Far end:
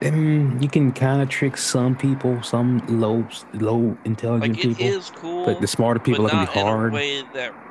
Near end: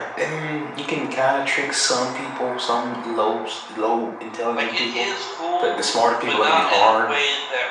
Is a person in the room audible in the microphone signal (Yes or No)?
No